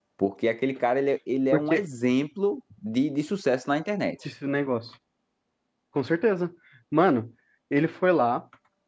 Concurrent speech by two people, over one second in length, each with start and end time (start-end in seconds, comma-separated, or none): none